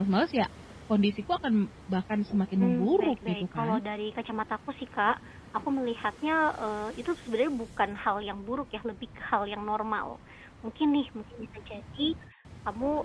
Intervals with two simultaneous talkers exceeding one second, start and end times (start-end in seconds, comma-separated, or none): 2.6-3.8